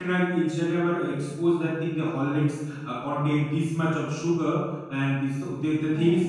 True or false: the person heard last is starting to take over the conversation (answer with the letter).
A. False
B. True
A